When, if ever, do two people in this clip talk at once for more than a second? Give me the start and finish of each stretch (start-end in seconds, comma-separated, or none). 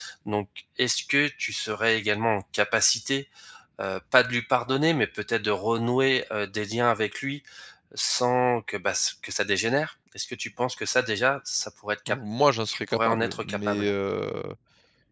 12.7-13.9